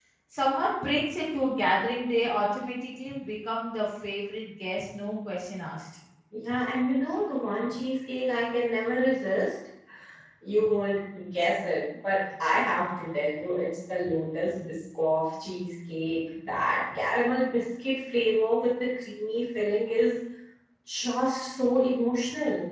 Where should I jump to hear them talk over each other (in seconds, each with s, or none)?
none